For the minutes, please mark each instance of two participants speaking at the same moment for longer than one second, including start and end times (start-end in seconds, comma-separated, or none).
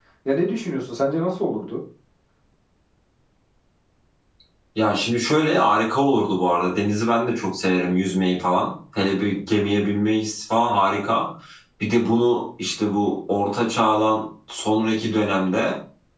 none